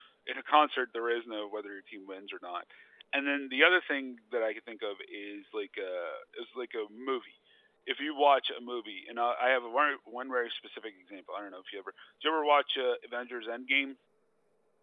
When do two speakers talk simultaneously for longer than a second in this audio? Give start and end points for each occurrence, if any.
none

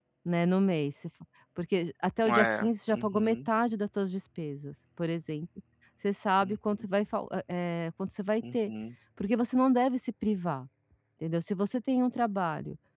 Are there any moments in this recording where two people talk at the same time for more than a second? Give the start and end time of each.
2.2-3.5

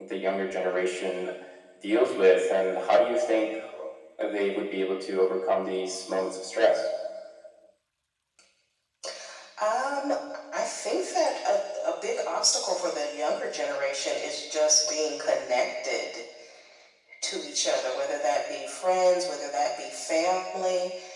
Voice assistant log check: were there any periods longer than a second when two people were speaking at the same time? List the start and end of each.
none

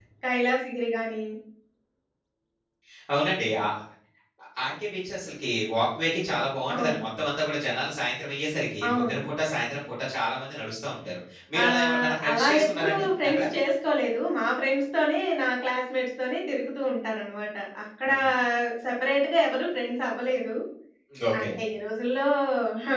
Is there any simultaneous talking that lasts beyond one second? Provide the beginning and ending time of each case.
11.6-13.4

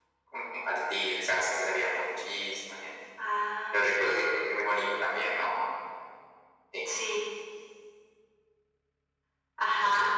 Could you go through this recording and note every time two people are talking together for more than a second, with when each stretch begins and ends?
none

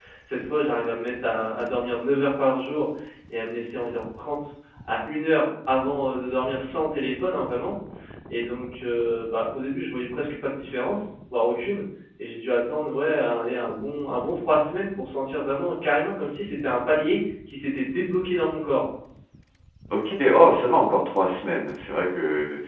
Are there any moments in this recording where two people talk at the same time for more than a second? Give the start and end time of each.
none

